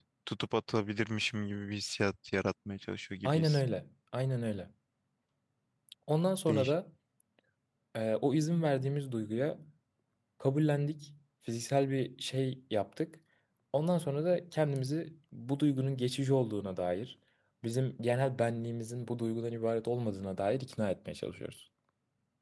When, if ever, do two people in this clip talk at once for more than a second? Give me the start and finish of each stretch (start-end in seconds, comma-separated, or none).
none